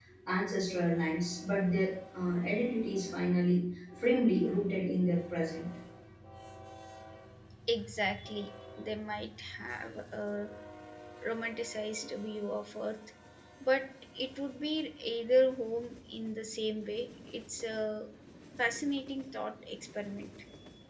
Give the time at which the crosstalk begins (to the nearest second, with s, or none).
none